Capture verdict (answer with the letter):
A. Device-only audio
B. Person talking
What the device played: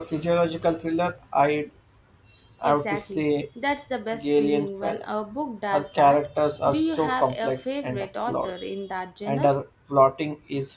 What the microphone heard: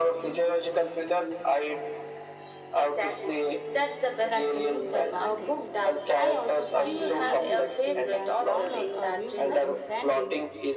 B